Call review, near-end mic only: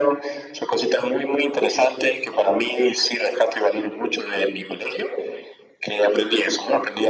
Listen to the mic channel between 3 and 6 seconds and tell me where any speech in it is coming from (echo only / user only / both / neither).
echo only